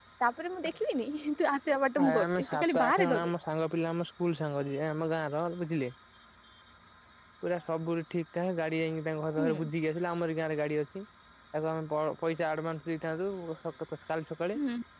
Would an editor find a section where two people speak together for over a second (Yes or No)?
Yes